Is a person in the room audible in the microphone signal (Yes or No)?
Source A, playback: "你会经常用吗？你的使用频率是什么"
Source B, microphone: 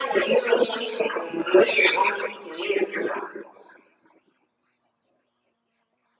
No